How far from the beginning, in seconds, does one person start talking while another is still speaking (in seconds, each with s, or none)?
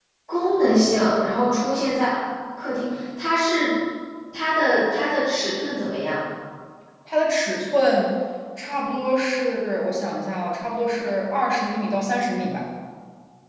none